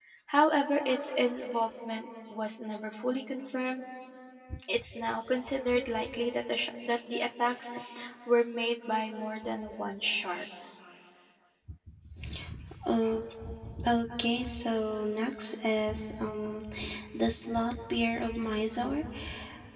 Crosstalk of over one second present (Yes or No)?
No